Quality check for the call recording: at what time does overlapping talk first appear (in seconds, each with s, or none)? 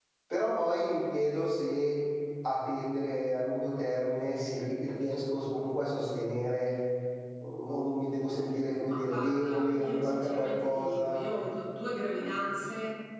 8.9 s